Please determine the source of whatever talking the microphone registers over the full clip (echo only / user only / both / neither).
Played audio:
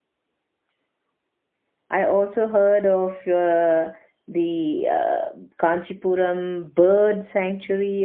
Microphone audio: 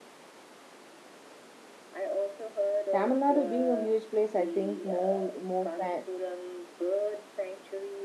both